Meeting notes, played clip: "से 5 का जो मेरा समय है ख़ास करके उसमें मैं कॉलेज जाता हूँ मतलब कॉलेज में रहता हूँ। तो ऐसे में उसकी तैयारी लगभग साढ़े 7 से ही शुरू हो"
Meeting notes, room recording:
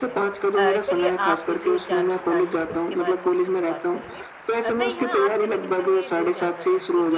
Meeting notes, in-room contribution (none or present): present